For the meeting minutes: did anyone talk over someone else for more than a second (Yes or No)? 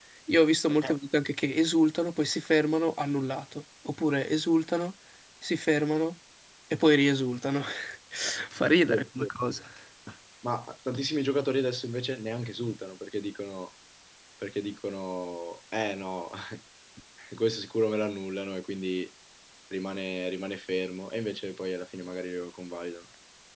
No